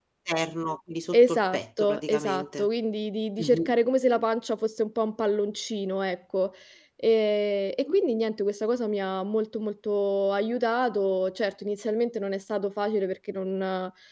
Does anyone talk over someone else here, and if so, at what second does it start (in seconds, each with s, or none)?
1.1 s